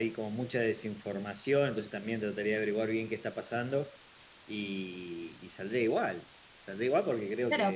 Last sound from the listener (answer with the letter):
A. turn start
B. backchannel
A